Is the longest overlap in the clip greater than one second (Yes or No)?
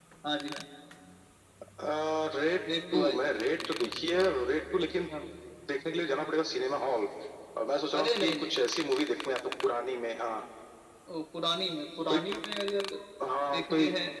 No